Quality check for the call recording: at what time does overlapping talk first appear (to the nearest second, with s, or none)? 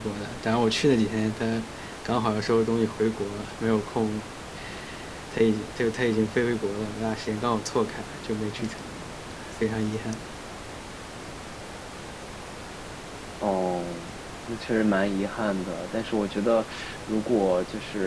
none